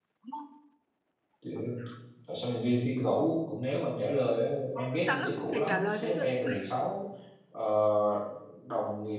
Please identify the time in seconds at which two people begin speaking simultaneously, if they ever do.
4.8 s

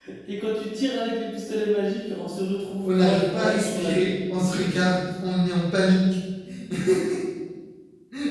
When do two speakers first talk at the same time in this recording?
2.8 s

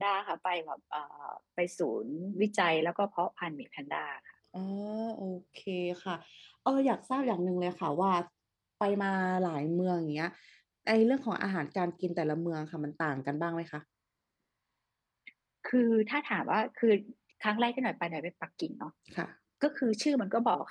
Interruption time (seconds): none

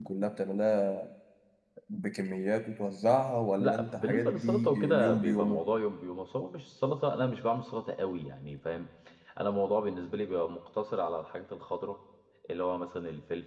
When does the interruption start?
3.6 s

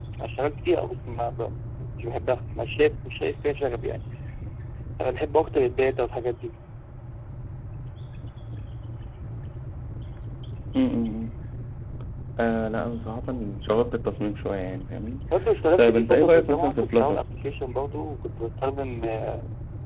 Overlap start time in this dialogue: 15.8 s

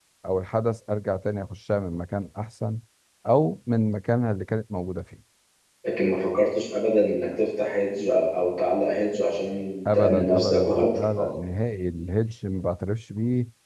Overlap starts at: 9.8 s

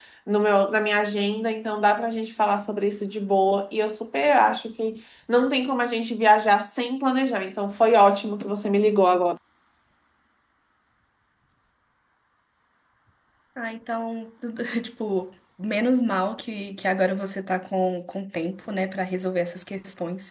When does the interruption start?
none

